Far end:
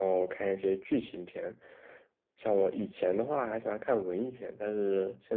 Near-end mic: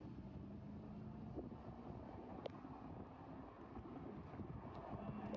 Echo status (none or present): none